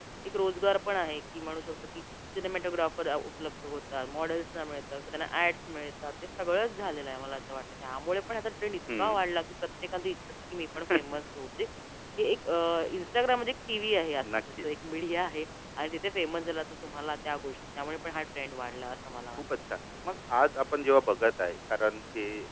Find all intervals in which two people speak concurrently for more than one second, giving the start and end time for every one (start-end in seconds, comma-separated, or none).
none